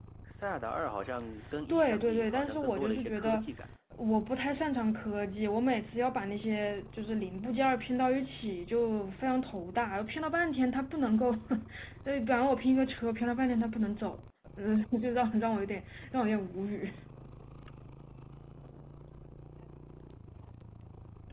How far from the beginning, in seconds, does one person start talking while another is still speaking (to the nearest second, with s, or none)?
2 s